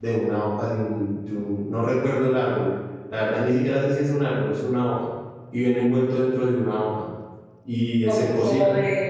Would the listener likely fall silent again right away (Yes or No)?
No